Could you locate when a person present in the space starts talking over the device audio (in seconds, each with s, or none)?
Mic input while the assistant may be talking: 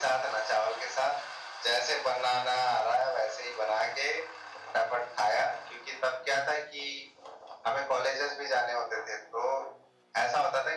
none